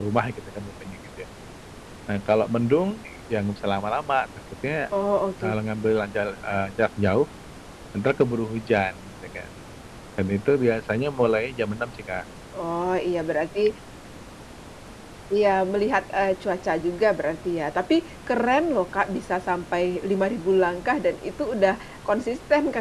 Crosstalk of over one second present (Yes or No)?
No